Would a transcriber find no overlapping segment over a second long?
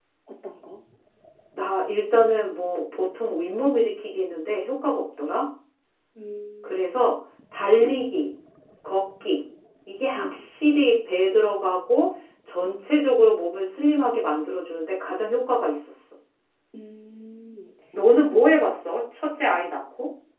Yes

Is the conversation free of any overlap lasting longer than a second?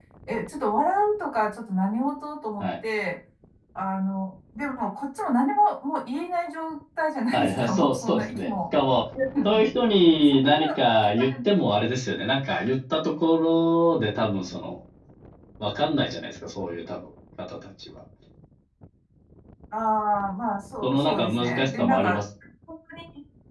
No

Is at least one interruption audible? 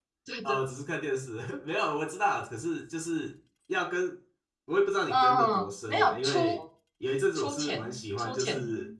Yes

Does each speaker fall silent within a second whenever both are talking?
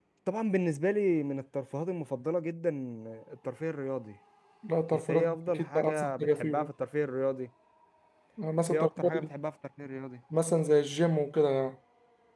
No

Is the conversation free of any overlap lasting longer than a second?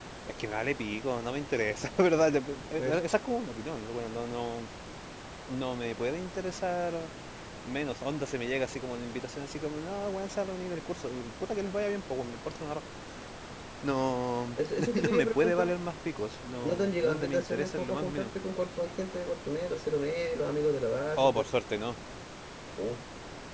No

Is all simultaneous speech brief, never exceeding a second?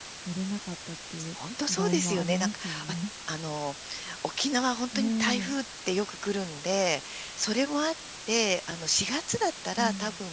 No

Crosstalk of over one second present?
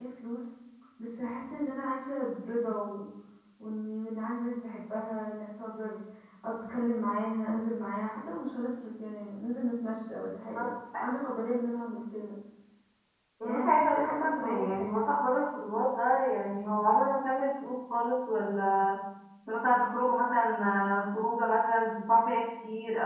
Yes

